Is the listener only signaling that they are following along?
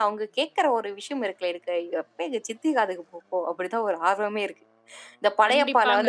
Yes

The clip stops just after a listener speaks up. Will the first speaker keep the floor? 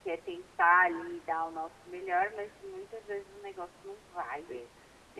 No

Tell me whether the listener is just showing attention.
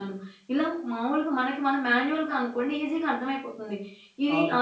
Yes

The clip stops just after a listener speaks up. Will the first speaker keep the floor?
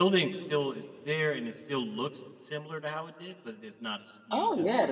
No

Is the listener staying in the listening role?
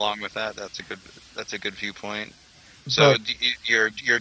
Yes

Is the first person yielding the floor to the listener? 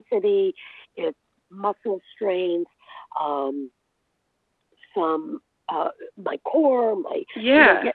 No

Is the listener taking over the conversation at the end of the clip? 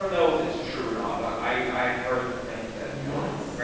No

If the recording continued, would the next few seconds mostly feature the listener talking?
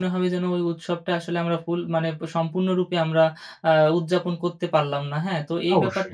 No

